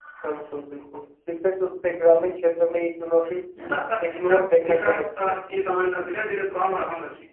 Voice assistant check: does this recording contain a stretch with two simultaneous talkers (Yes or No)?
Yes